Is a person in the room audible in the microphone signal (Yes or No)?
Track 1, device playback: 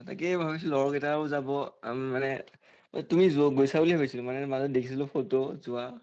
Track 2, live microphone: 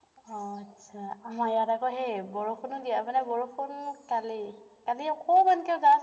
Yes